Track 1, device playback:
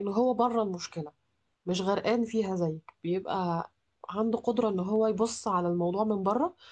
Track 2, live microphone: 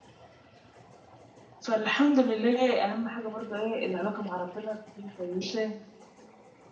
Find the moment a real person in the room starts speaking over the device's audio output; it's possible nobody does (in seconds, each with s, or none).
1.6 s